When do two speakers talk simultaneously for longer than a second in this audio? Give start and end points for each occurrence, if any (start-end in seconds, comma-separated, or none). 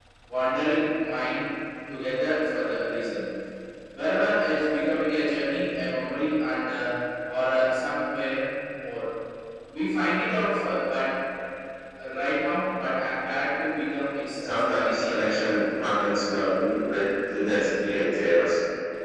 14.4-15.7